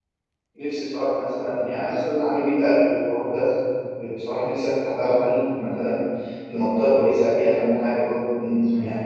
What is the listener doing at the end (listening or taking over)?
taking over